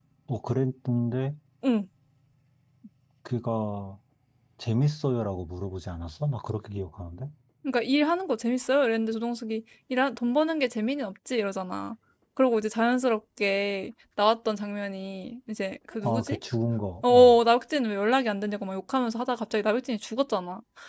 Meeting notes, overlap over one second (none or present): none